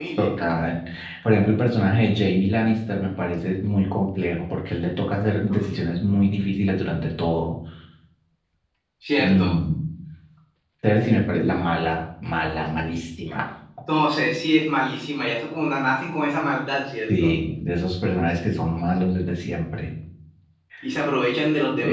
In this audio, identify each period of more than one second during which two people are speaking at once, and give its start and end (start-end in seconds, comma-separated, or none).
none